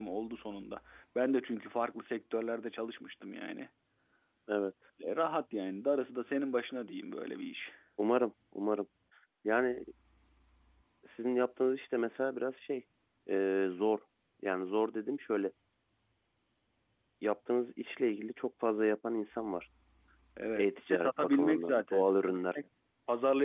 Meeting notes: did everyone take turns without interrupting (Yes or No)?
No